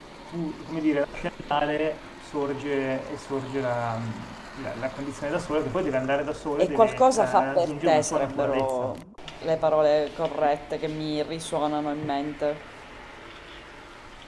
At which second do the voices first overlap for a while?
7 s

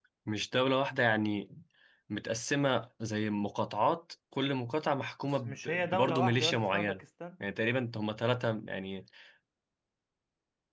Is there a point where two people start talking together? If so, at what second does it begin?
5 s

